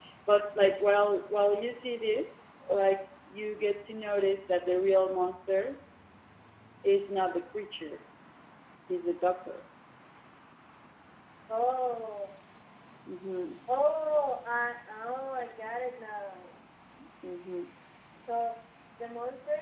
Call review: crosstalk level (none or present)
none